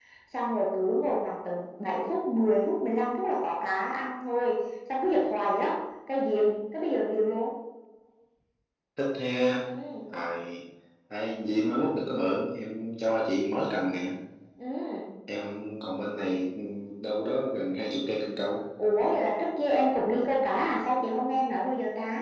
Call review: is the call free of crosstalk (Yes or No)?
Yes